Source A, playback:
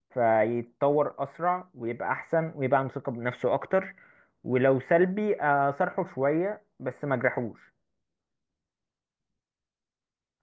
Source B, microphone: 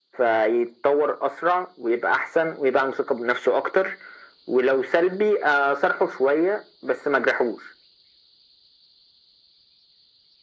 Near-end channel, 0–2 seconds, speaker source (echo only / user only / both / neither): echo only